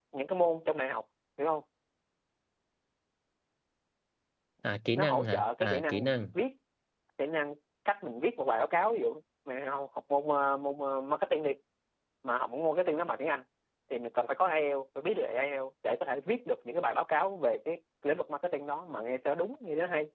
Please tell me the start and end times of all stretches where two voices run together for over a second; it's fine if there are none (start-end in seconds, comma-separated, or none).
4.9-6.3